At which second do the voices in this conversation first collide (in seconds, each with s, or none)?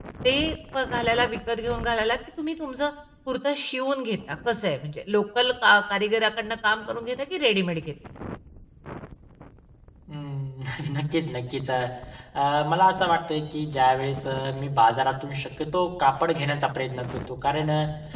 none